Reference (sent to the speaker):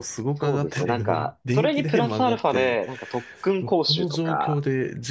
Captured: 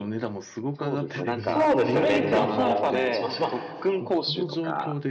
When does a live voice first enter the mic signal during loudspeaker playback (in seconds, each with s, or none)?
1.4 s